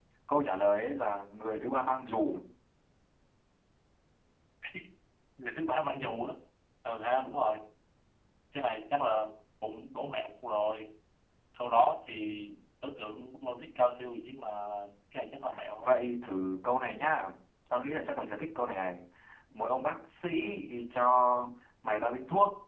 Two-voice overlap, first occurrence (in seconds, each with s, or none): none